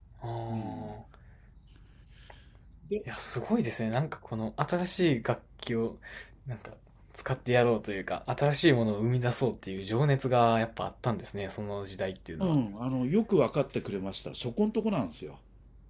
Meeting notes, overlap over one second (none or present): none